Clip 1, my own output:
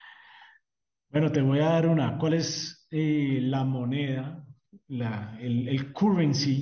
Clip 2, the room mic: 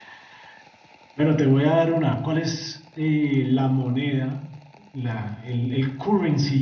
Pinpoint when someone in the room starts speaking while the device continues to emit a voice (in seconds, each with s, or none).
none